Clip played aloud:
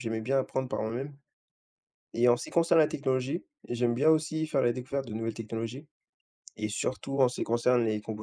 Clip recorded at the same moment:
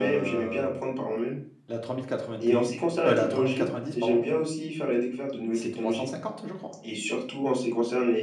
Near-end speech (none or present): present